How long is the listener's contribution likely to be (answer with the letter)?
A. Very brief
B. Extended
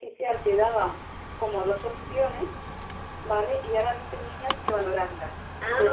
A